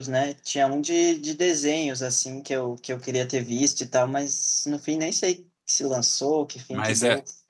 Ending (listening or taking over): taking over